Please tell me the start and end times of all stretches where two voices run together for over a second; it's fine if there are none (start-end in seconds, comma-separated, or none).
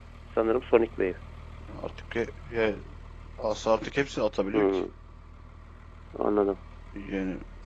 none